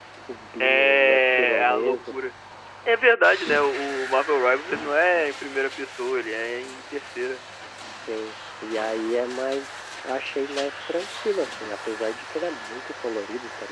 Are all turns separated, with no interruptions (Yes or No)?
No